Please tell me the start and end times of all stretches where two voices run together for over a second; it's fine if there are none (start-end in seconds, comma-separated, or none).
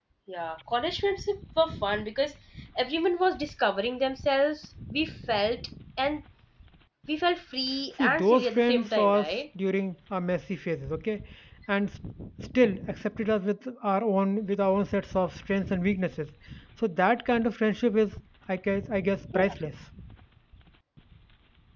8.0-9.3